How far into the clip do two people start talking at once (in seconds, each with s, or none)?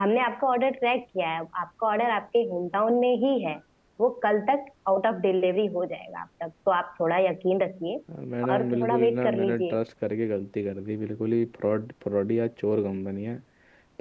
8.5 s